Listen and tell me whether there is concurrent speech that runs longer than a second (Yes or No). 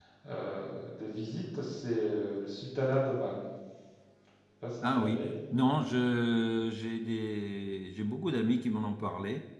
No